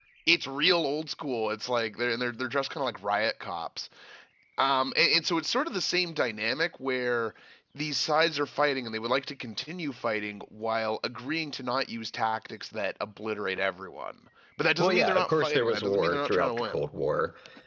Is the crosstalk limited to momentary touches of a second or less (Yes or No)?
No